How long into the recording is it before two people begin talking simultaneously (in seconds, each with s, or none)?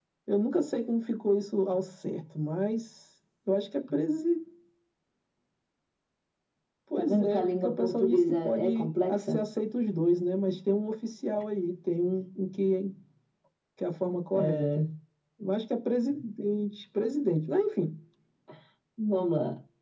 7.0 s